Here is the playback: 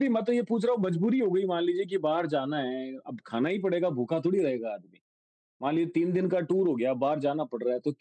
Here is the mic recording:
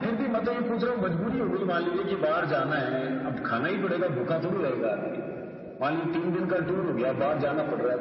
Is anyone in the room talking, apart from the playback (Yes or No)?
No